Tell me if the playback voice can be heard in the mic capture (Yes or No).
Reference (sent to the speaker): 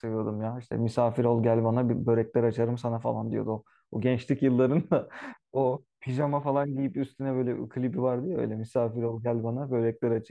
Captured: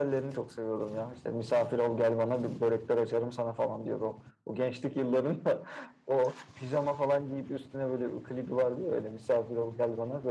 Yes